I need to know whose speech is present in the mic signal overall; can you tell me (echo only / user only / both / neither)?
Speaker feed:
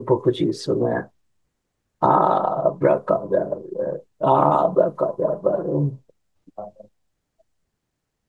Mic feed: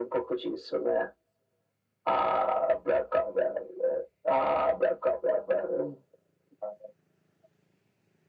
echo only